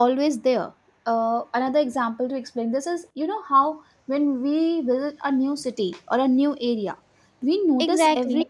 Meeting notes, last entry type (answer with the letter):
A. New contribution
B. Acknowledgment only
B